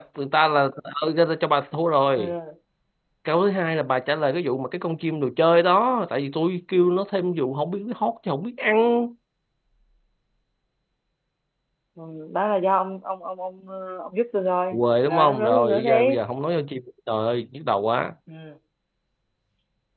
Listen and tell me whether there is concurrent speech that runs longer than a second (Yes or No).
Yes